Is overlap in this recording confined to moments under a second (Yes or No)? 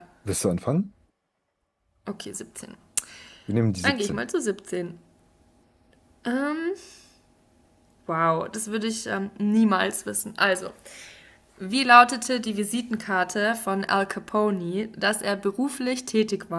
Yes